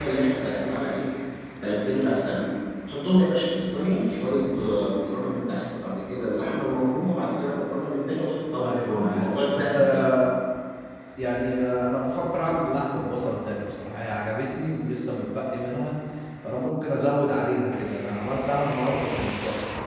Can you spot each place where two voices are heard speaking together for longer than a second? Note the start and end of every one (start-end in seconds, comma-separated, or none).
8.6-10.1